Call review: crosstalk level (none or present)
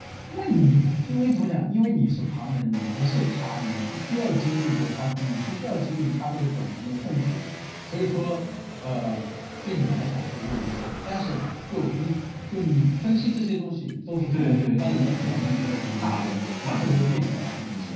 present